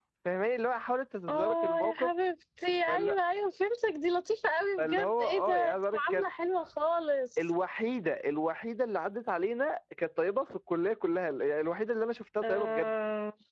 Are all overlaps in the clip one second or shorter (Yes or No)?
No